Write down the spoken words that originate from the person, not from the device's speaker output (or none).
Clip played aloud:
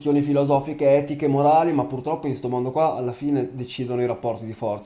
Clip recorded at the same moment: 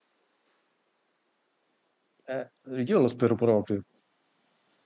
Eh, io lo spero proprio.